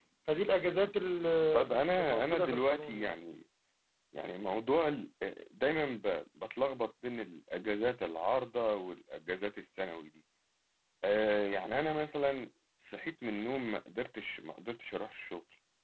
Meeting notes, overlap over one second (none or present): present